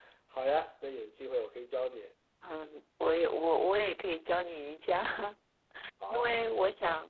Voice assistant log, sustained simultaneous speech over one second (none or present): none